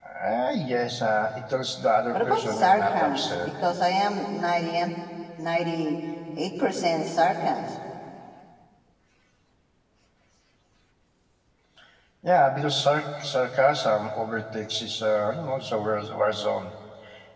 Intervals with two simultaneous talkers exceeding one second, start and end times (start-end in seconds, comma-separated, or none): 2.1-3.5